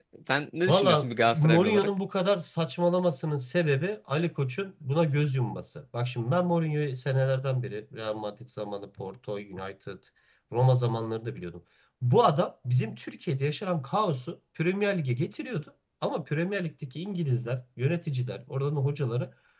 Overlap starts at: 1 s

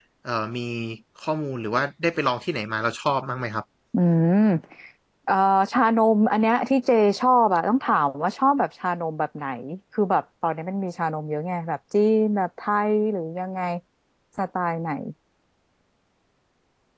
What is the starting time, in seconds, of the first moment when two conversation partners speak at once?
none

